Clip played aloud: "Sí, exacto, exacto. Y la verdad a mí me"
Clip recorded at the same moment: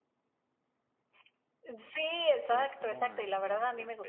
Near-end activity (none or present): present